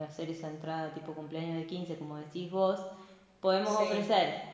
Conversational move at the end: listening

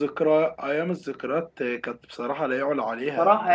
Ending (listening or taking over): taking over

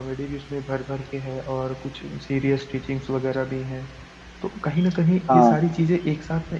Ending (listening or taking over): listening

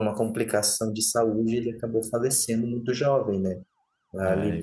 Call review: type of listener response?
listening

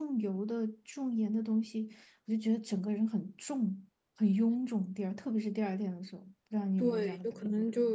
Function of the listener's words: taking over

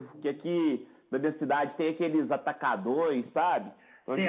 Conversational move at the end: taking over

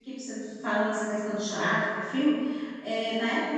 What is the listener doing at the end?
listening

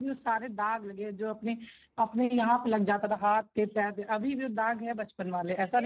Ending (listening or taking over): taking over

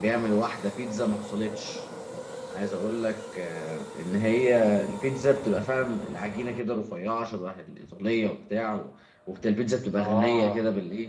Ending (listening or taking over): listening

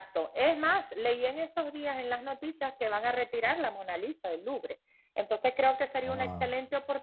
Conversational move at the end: listening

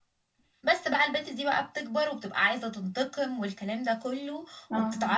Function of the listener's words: listening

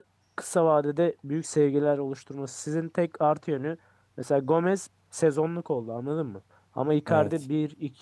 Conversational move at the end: listening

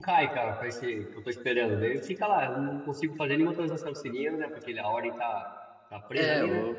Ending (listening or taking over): taking over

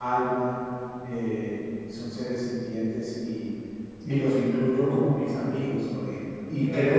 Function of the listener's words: listening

